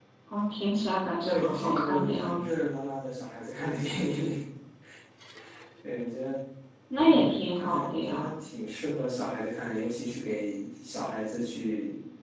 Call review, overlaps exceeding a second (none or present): present